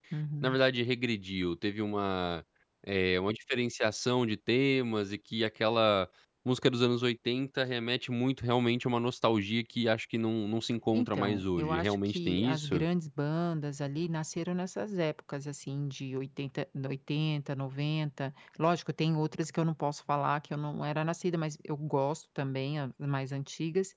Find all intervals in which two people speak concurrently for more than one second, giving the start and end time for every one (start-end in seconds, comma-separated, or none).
10.9-12.8